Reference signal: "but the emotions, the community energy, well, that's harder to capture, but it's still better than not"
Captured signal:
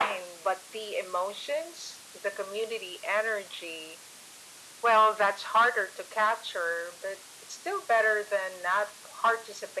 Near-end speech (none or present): none